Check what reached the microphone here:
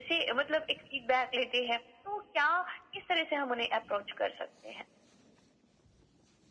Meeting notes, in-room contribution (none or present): none